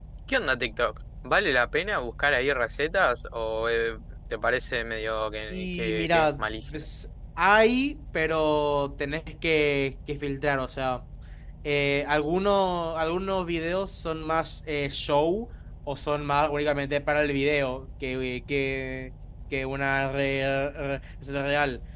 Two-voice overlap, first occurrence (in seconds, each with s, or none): 5.5 s